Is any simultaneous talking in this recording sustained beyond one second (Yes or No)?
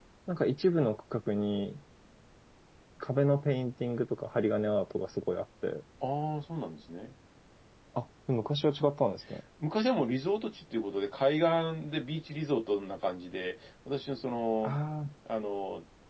No